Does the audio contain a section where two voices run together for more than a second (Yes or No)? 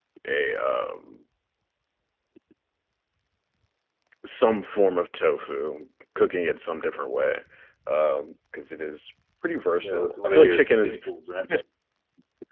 Yes